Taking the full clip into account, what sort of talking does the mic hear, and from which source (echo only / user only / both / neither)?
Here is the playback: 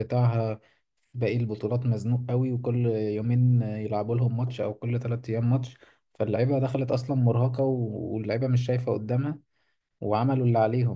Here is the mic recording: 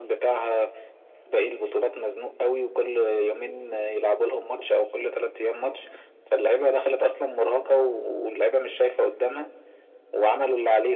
echo only